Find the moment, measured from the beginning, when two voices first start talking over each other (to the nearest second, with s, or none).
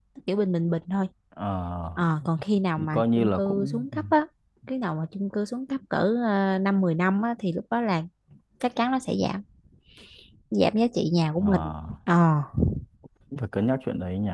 3 s